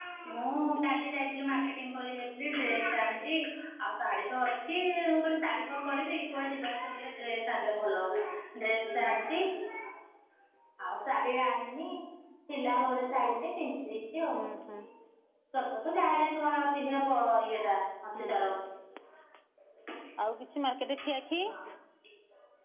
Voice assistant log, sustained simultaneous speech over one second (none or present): none